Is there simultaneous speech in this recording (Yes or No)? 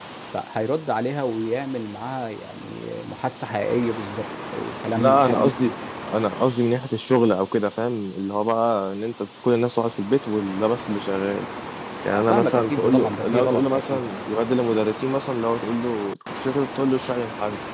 Yes